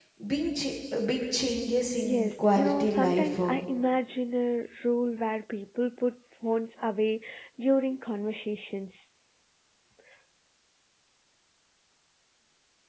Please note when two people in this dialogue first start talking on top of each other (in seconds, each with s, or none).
2.0 s